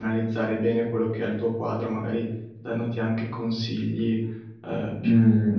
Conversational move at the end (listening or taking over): taking over